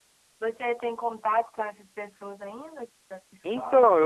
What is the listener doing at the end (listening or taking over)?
taking over